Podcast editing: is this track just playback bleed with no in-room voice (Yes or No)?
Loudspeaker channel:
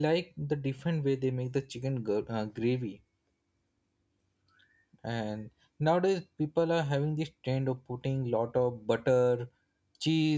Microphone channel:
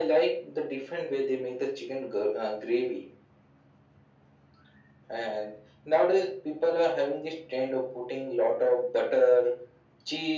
Yes